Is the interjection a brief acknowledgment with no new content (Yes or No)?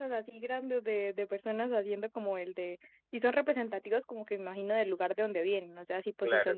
Yes